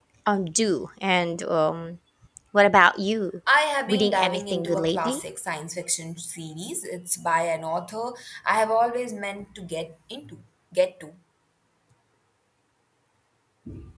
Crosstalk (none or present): present